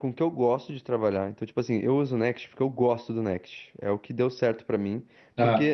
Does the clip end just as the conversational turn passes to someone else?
No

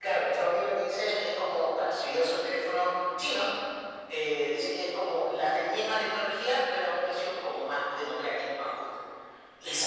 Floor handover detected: Yes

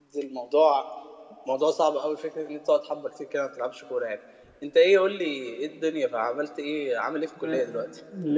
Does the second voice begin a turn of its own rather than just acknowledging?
Yes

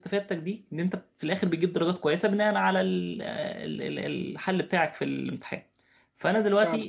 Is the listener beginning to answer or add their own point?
No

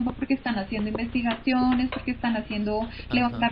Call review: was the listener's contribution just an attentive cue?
Yes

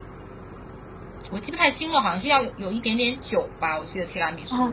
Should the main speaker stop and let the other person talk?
Yes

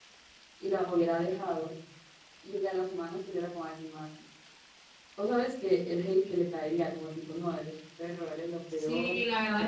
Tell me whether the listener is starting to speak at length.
Yes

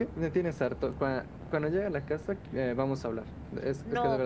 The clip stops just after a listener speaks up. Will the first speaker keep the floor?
No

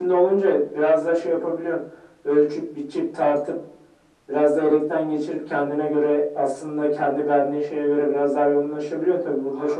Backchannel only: Yes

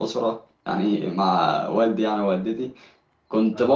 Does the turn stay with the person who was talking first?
Yes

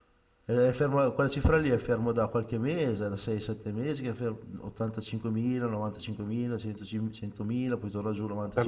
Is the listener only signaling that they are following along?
No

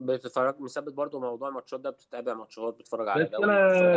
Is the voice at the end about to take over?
Yes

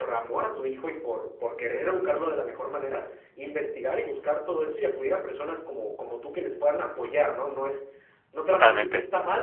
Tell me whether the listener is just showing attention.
Yes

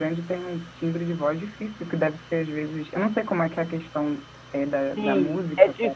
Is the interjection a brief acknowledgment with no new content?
No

